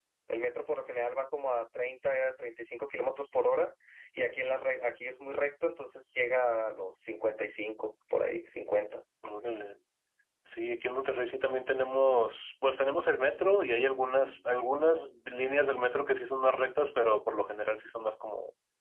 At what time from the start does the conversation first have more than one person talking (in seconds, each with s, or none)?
none